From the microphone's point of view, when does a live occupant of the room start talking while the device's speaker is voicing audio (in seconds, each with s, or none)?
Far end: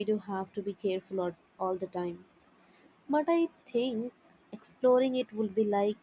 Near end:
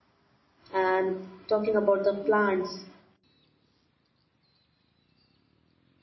0.7 s